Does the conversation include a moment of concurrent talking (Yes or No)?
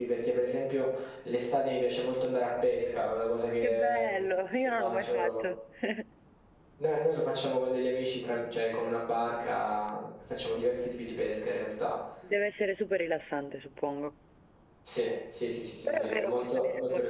Yes